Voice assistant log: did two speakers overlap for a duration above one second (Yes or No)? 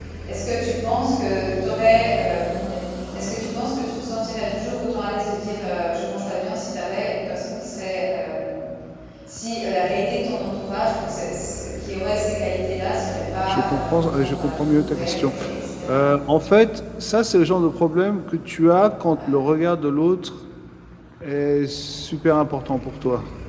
Yes